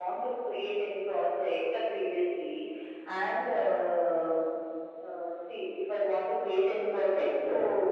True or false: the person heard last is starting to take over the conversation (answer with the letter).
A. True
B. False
B